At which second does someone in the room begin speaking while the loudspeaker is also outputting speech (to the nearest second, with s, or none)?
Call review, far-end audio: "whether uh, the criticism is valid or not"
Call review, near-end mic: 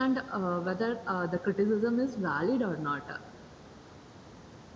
none